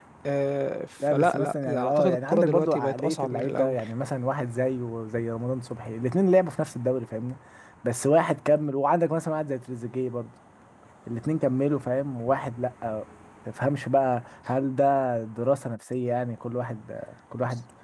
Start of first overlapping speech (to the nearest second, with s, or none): 1 s